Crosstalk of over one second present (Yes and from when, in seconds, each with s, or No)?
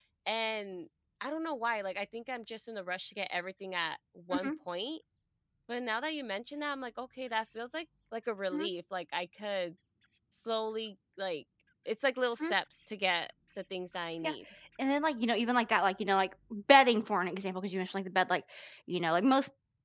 No